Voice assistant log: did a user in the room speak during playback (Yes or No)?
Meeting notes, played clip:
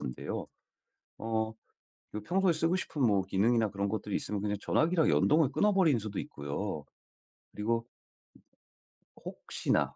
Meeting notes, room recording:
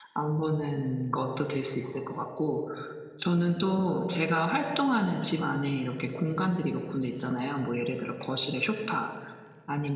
Yes